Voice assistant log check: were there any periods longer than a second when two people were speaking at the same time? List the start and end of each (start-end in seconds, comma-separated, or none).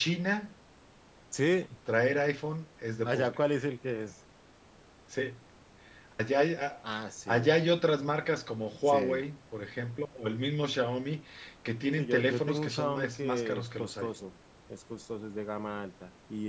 12.0-14.1